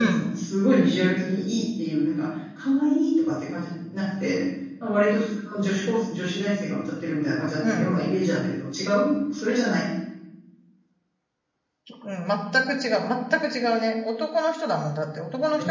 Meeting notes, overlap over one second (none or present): none